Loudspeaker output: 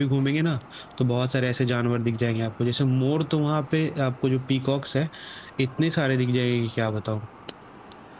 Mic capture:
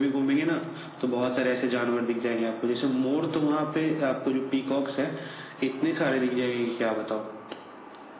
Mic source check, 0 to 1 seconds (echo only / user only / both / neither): echo only